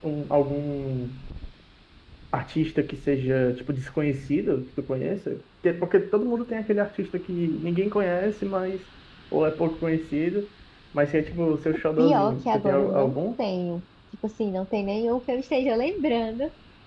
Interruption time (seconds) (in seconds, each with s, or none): 12.0 s